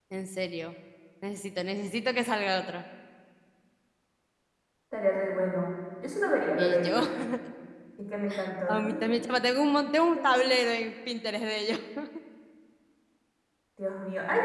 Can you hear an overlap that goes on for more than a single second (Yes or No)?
No